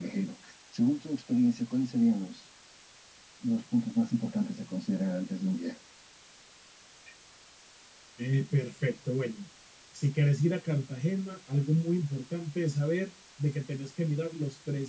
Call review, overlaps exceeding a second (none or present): none